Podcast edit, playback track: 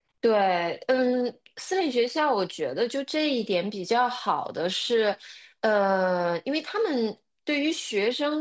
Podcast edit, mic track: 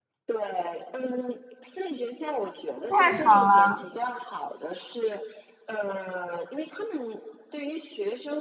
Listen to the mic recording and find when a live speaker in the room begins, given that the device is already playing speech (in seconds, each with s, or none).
2.8 s